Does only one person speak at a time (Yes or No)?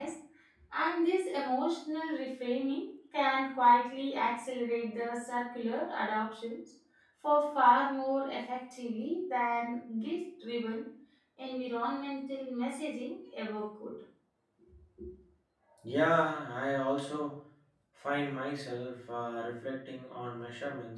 Yes